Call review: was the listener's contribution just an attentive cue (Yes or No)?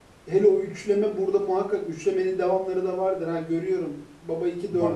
Yes